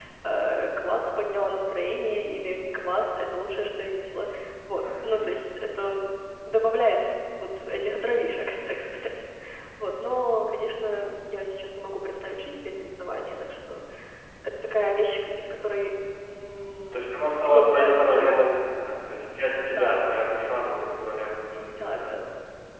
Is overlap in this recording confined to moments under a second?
No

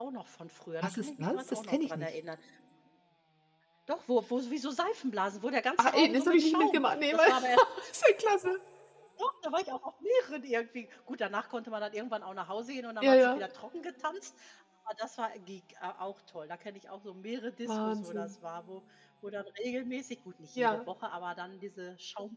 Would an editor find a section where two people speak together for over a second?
Yes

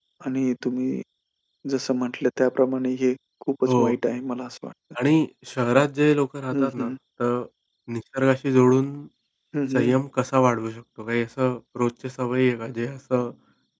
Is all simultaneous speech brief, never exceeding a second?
Yes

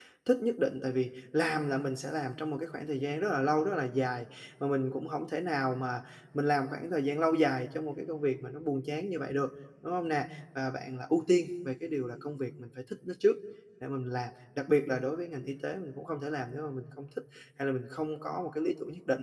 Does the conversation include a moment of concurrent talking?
No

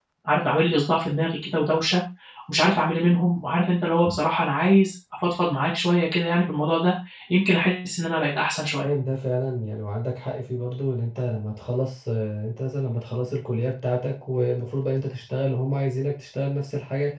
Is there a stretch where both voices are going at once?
No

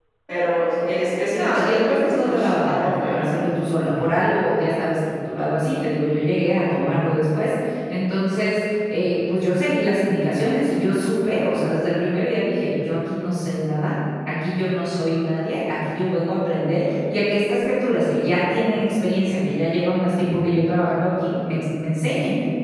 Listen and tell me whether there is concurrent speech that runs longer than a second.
Yes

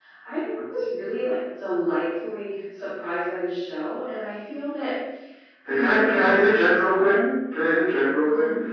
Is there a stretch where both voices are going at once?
Yes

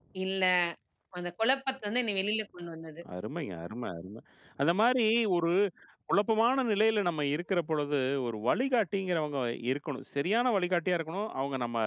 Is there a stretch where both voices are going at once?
No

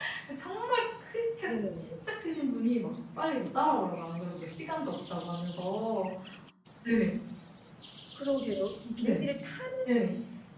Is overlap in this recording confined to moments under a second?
Yes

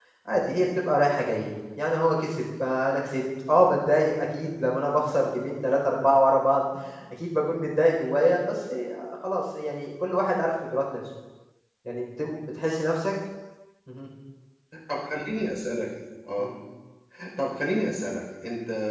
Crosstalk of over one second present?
No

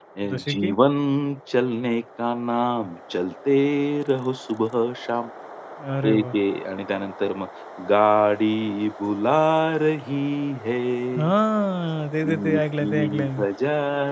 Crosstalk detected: Yes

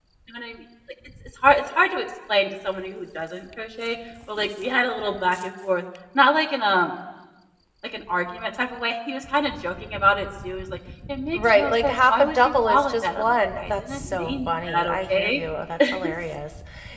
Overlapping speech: Yes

